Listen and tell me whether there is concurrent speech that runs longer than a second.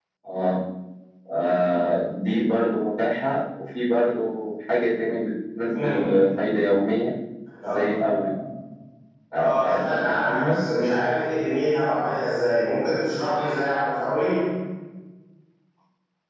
Yes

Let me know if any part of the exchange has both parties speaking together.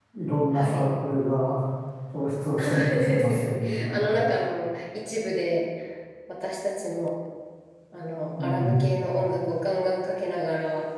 Yes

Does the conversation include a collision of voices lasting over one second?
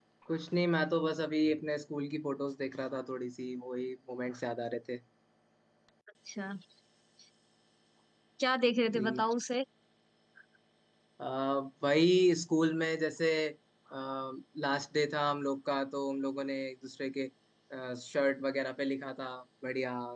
No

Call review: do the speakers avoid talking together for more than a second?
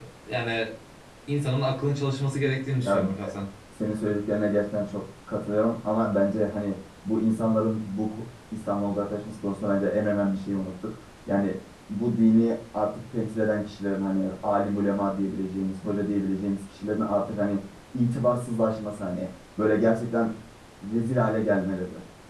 Yes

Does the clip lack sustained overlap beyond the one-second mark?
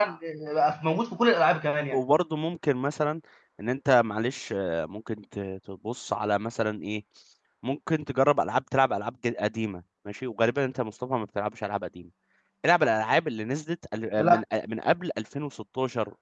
Yes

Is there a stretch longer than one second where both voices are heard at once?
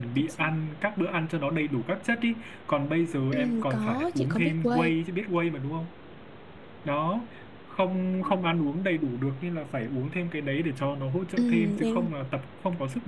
Yes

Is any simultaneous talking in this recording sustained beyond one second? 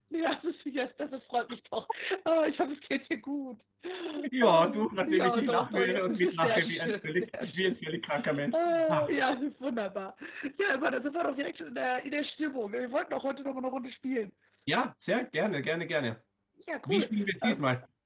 Yes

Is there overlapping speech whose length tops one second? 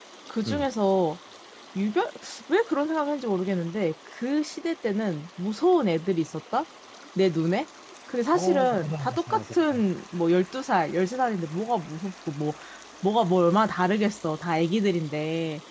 Yes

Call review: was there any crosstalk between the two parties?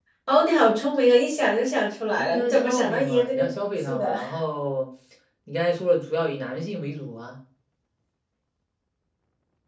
Yes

